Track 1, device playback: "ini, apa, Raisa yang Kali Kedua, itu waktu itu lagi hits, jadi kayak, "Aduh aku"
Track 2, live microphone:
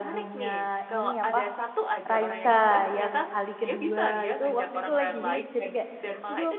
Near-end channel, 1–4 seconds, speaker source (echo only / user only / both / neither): both